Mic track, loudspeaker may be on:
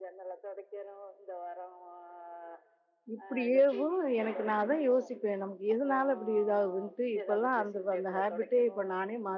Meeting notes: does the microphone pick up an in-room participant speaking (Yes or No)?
Yes